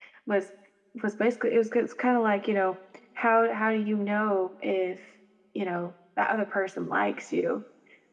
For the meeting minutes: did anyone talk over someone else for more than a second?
No

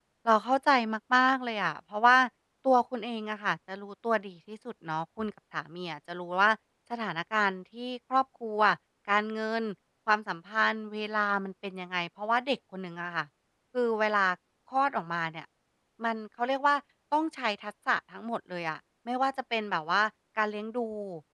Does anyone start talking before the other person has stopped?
No

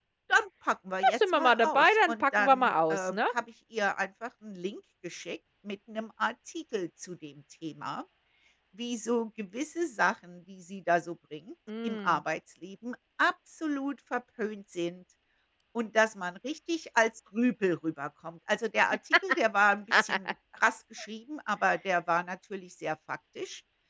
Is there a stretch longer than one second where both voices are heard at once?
Yes, from 1.0 s

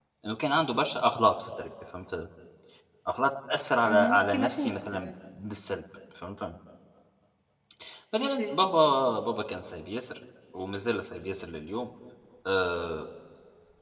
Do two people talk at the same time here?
Yes, from 3.8 s

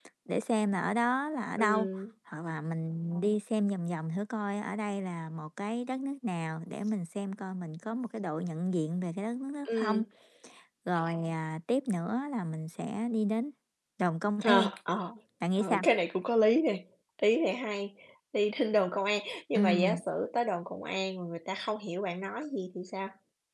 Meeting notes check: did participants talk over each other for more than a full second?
No

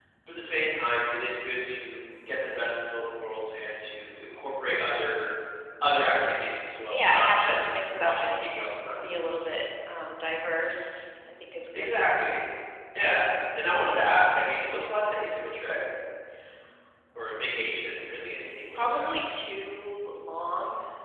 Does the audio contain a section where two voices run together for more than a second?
Yes, from 6.9 s

